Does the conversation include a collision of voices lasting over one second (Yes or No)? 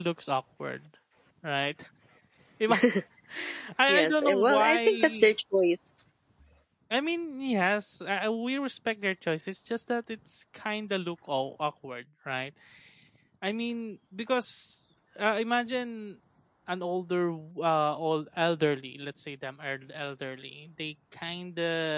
Yes